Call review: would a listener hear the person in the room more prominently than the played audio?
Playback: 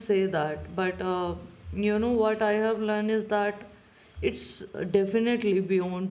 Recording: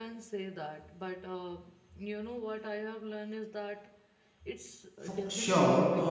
Yes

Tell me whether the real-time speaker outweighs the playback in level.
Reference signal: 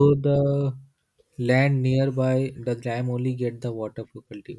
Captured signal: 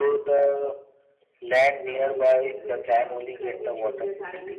No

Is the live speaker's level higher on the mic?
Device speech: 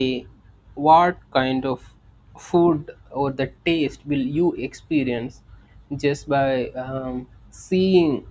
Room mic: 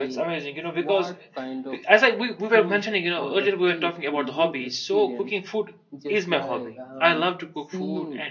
Yes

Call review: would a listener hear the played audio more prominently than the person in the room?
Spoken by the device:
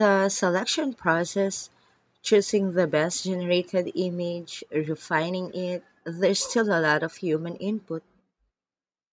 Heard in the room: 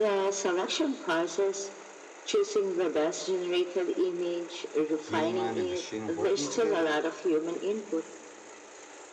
Yes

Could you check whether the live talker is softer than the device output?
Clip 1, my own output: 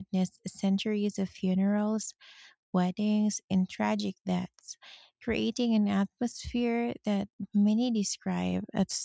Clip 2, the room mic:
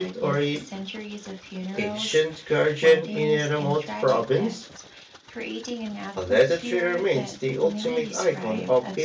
No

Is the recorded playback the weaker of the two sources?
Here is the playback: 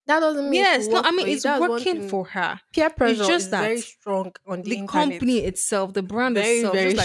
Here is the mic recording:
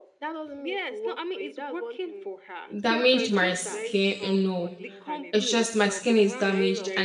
Yes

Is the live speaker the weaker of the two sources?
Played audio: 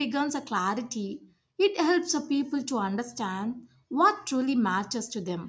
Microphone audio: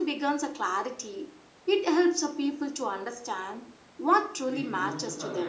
Yes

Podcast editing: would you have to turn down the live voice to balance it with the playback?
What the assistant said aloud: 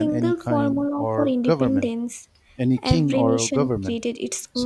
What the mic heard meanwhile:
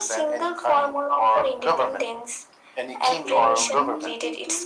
No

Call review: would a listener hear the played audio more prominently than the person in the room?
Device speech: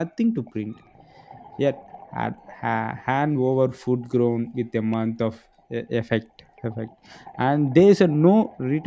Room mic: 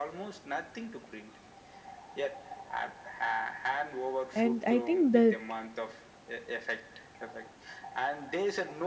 No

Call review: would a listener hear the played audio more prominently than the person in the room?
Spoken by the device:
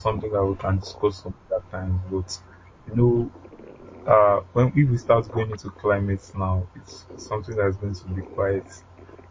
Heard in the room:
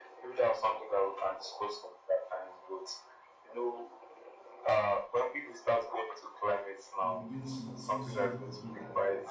Yes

